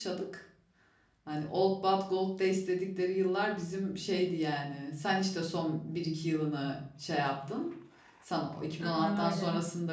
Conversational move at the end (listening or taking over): listening